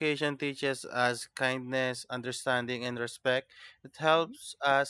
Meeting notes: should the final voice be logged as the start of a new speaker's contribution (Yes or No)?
No